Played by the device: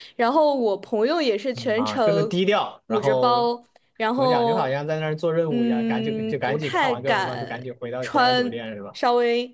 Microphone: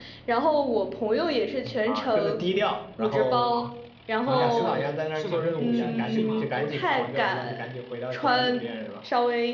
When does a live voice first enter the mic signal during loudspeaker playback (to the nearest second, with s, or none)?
3 s